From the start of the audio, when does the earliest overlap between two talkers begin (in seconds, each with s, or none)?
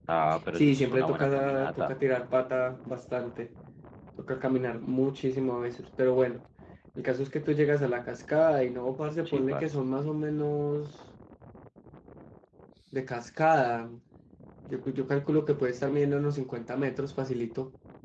0.6 s